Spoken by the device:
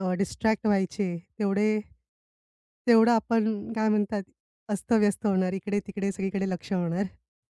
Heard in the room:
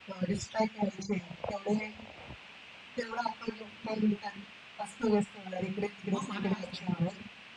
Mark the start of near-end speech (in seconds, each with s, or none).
6.1 s